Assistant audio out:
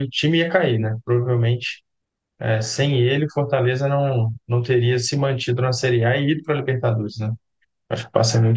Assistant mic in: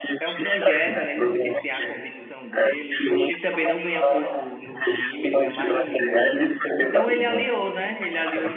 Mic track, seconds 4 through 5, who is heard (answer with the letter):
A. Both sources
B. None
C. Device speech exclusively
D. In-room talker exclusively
A